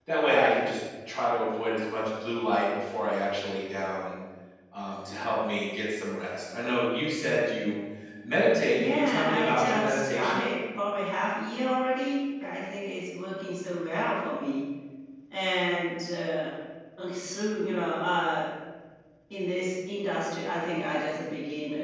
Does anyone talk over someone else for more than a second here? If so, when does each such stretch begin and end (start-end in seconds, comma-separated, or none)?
8.7-10.5